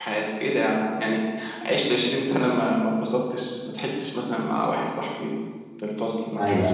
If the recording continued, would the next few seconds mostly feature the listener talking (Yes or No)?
No